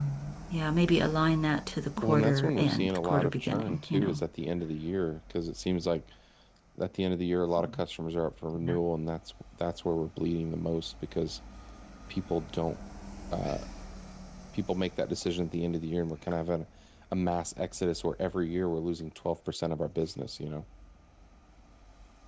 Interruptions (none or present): present